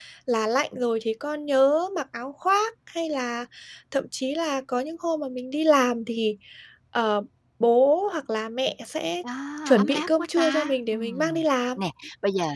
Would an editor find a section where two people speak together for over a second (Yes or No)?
Yes